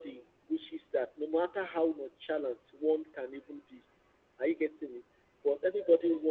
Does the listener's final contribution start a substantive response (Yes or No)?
No